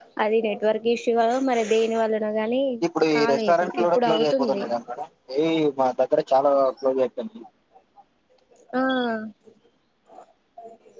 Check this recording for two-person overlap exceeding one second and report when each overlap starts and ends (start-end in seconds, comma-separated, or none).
3.2-4.6